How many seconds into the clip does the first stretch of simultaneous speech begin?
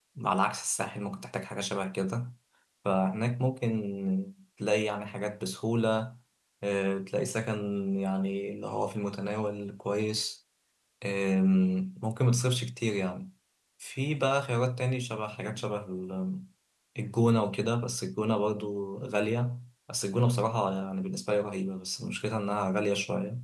none

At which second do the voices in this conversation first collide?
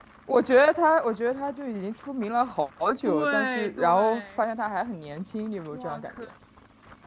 3.0 s

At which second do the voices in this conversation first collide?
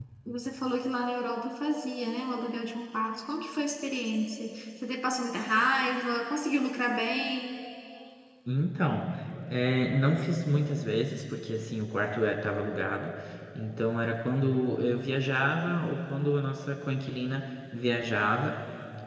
none

